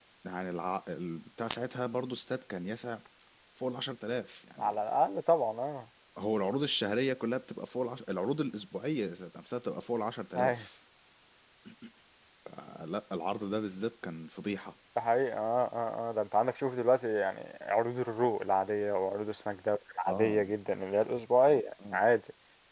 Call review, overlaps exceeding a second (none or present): none